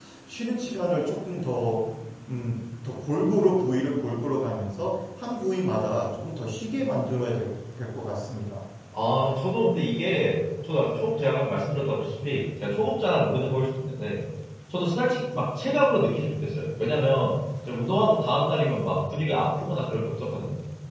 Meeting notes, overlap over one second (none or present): none